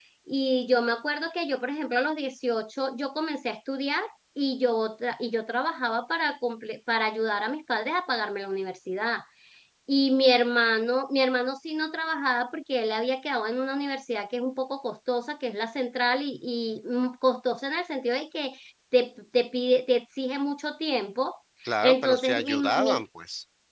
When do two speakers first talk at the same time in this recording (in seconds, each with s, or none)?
21.8 s